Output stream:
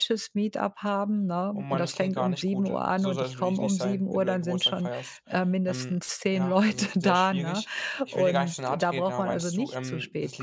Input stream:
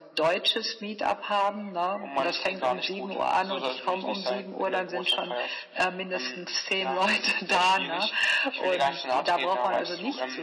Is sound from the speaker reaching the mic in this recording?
Yes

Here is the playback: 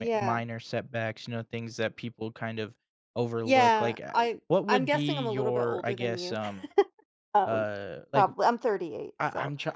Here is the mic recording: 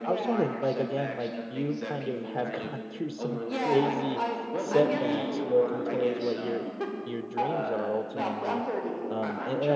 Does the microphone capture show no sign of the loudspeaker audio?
No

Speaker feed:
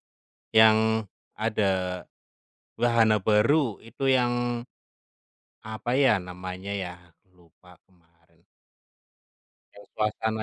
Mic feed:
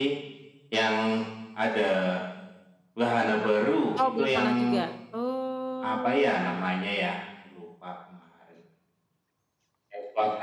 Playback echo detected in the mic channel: Yes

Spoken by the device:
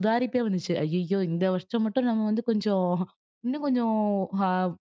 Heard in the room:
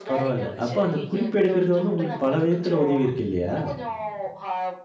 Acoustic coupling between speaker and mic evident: Yes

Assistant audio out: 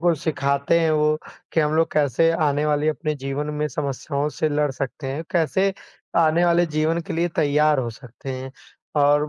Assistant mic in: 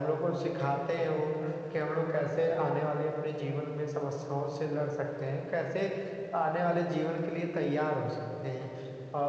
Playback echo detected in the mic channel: Yes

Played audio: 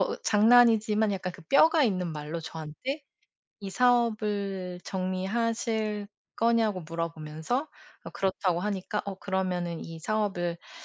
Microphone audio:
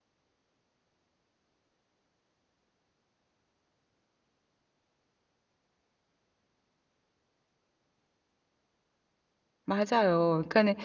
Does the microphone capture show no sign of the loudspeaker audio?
Yes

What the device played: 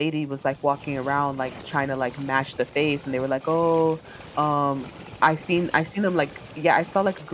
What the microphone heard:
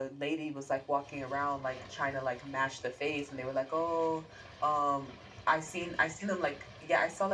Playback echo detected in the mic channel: Yes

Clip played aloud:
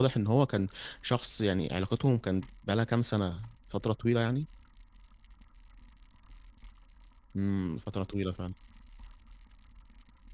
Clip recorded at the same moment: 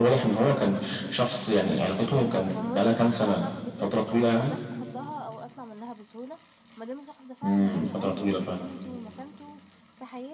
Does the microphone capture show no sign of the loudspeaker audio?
No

